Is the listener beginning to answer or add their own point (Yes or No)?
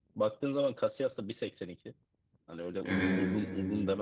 No